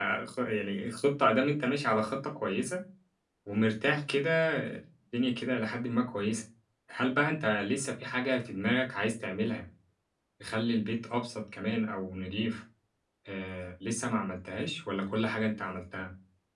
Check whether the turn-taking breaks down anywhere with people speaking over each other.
No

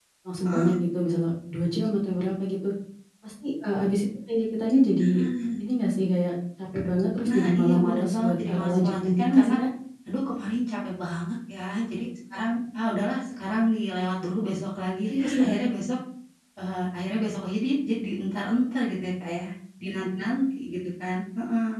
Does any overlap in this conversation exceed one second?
Yes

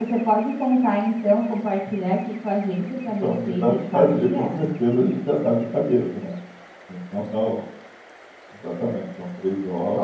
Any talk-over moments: Yes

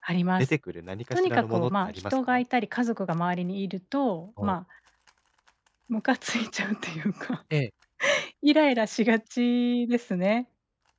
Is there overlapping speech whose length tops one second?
Yes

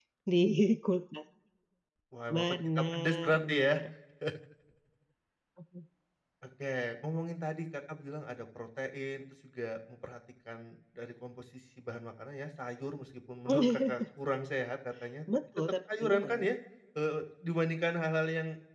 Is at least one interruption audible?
Yes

